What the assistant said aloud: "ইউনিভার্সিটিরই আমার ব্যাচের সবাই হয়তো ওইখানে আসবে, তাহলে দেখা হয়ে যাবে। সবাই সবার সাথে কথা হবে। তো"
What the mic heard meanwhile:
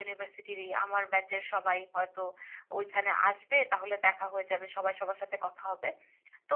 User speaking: No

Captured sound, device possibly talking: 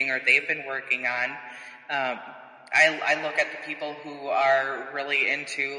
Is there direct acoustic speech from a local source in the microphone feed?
No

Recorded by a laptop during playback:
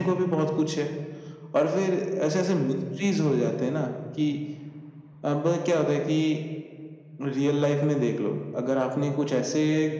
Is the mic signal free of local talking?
Yes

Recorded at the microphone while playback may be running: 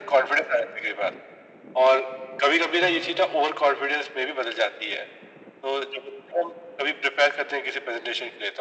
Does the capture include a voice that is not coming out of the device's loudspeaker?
Yes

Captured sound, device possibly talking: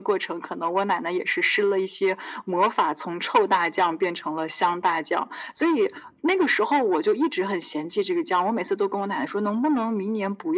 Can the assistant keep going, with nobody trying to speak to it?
Yes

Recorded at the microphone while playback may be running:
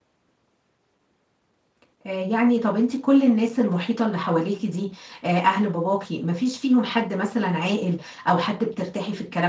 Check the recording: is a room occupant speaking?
Yes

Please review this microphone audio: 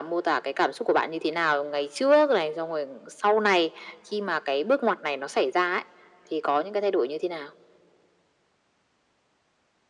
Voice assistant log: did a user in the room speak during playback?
No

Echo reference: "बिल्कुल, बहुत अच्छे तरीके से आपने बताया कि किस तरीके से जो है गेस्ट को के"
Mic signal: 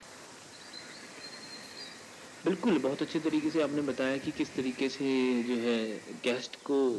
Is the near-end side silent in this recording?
Yes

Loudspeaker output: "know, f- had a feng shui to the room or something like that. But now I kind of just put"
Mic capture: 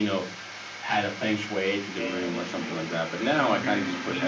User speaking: Yes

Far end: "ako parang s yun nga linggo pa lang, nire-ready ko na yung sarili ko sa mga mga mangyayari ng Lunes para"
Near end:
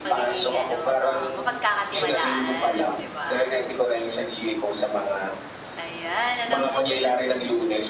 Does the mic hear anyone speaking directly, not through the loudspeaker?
Yes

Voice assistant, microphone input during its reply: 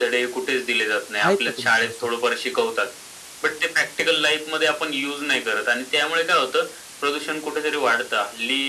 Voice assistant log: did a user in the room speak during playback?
Yes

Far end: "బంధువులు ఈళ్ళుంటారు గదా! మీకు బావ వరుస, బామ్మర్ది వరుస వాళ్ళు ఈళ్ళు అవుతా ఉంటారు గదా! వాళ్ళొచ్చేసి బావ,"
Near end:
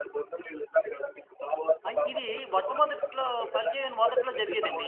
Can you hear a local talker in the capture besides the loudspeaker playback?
Yes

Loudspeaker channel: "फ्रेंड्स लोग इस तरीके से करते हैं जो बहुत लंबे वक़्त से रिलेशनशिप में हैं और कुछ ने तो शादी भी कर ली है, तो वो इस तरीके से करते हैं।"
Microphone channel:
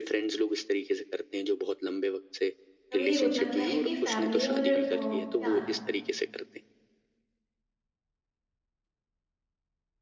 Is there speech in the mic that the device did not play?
Yes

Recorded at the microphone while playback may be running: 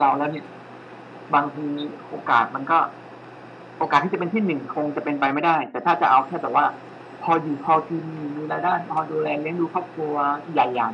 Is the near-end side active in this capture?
No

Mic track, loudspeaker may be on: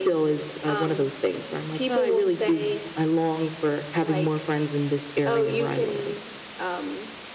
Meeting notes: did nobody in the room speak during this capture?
Yes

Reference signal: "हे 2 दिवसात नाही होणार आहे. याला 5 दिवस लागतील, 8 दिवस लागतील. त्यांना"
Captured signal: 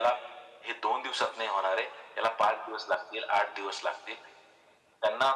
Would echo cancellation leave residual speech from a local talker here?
No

